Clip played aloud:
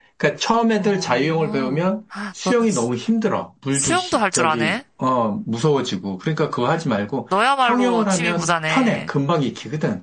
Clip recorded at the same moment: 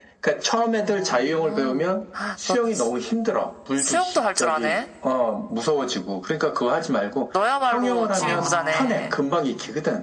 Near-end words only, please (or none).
아,